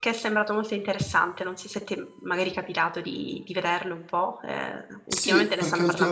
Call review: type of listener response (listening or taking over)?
taking over